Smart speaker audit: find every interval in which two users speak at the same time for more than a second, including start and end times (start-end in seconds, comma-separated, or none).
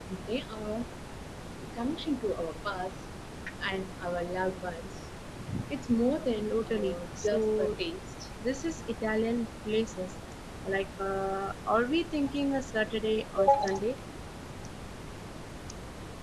6.5-7.8